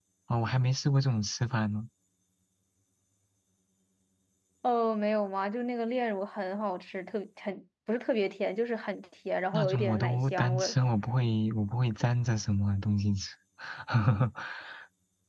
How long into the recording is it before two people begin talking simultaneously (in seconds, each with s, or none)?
9.5 s